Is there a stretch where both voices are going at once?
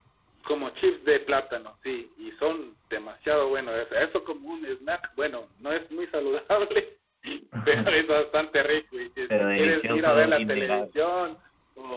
Yes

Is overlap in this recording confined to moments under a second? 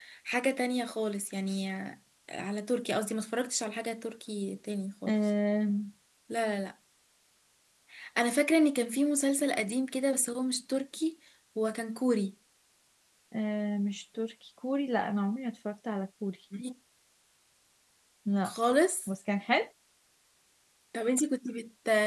Yes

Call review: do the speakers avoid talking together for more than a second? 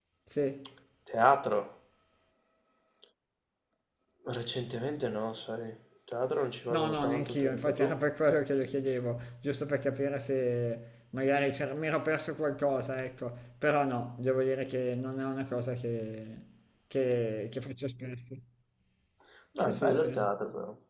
No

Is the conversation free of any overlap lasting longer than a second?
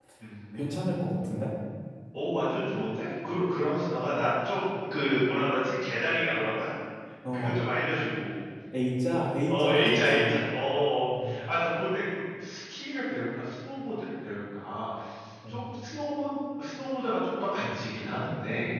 No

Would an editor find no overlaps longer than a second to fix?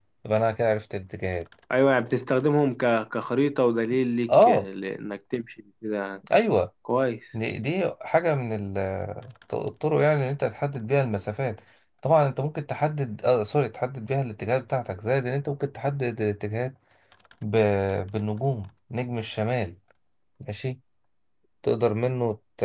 Yes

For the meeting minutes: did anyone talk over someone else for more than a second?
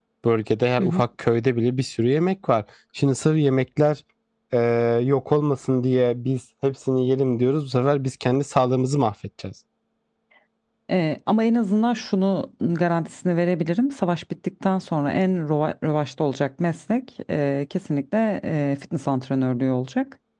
No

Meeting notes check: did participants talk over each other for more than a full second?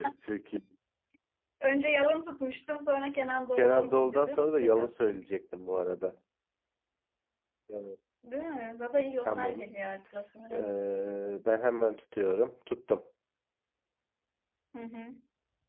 Yes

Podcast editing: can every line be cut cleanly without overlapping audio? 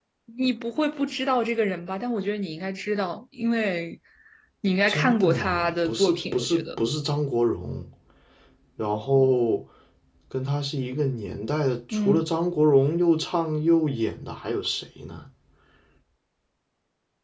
No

